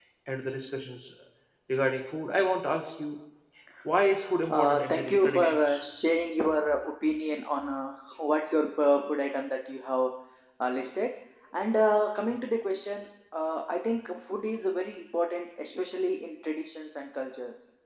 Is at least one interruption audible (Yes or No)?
Yes